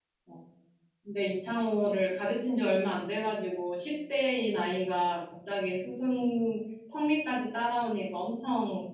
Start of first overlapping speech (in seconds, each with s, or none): none